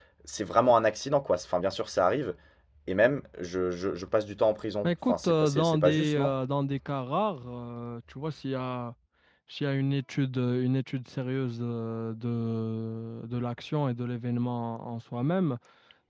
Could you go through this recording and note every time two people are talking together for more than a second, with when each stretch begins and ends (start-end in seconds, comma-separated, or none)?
4.8-6.3